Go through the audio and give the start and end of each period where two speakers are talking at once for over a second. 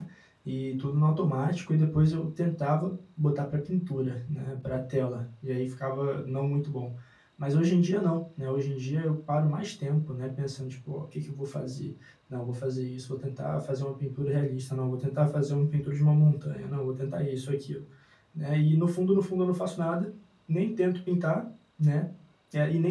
none

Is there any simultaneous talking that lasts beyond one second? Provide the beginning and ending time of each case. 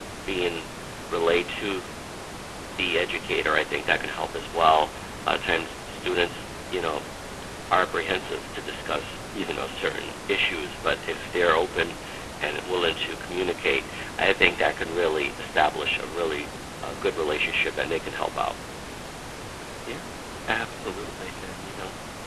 none

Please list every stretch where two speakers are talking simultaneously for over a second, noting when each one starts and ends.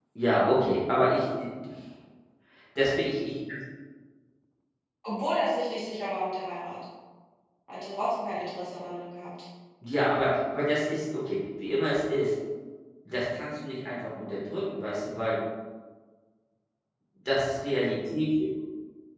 none

